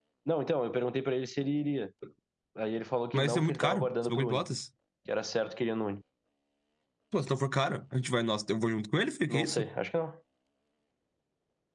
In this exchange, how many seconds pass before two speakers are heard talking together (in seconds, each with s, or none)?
3.1 s